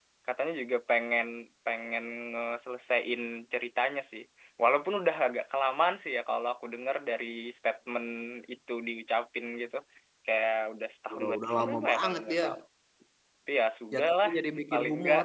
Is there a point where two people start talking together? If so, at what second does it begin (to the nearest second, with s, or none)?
11 s